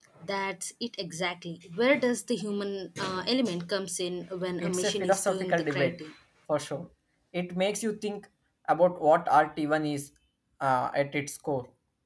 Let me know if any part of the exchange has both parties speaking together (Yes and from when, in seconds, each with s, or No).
Yes, from 4.6 s